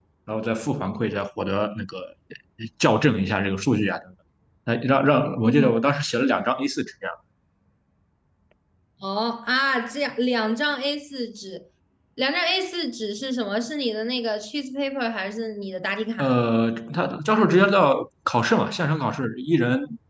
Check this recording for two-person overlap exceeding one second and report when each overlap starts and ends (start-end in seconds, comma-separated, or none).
none